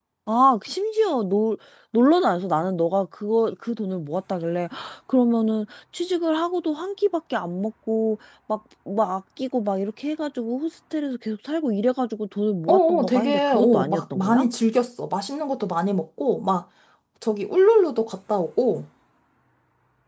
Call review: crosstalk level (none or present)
present